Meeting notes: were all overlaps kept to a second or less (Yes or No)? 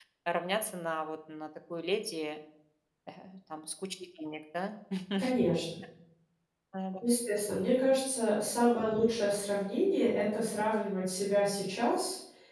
Yes